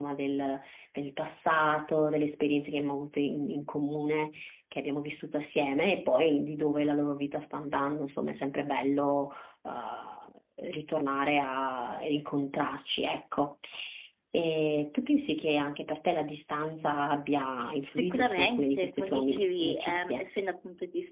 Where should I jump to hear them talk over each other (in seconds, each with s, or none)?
17.9 s